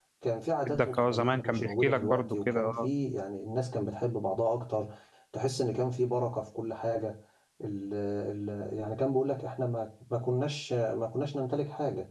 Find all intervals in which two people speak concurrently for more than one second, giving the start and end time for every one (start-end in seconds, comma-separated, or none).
0.7-2.9